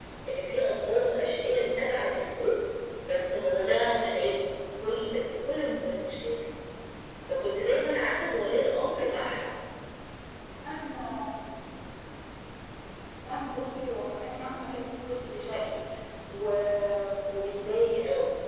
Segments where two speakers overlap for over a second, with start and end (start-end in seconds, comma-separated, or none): none